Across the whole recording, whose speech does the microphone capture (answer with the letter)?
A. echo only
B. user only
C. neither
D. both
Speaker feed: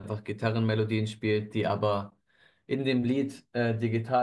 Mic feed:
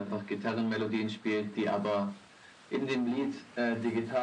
A